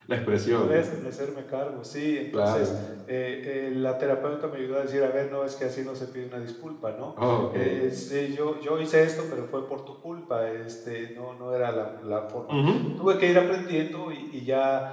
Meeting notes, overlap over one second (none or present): none